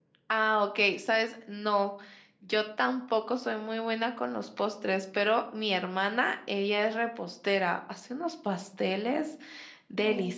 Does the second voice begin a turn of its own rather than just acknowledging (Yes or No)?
No